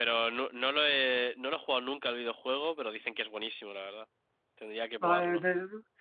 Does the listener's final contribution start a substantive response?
Yes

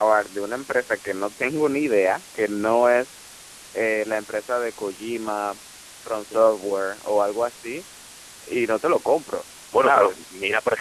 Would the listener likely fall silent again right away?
No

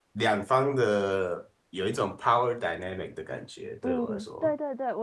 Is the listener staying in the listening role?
No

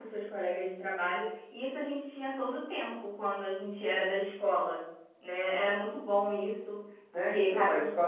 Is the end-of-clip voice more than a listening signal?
Yes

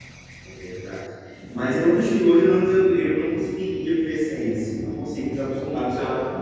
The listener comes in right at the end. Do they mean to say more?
No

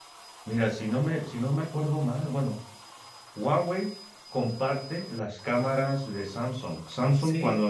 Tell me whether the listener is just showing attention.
Yes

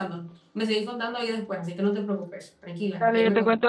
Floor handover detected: Yes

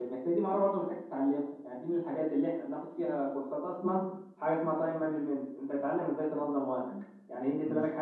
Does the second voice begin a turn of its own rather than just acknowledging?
No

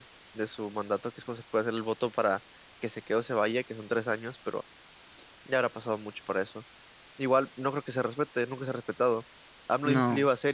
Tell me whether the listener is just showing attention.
Yes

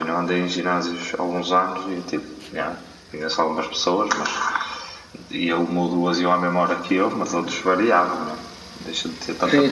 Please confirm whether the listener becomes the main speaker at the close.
Yes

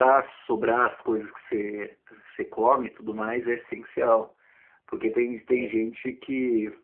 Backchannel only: Yes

